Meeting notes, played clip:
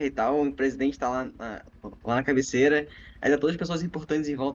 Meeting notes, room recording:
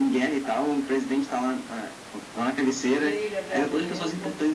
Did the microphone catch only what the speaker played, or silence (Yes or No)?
No